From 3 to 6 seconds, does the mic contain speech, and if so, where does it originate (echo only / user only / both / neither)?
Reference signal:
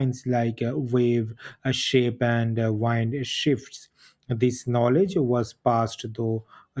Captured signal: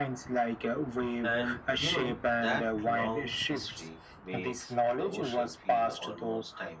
both